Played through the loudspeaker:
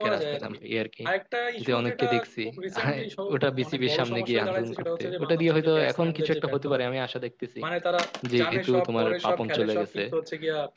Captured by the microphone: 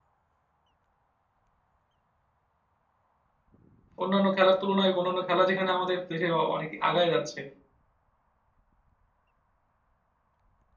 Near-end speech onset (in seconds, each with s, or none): 4.0 s